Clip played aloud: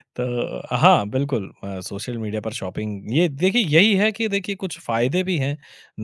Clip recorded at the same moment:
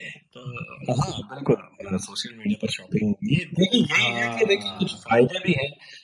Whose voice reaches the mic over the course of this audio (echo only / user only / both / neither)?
both